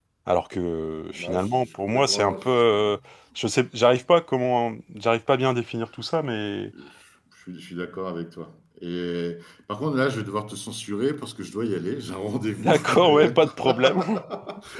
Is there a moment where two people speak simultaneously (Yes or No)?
Yes